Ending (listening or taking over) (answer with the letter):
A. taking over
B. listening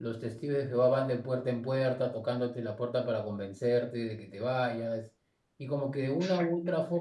B